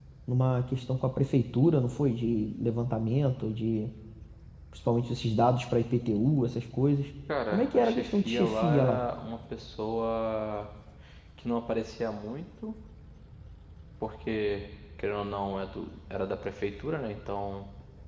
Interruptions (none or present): present